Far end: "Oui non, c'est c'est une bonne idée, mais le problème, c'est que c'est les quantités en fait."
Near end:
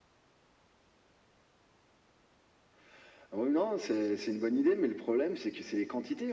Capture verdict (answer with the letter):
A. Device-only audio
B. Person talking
A